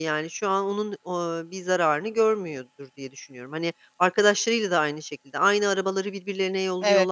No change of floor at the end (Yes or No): No